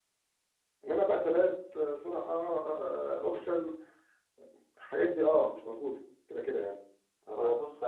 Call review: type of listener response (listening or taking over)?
taking over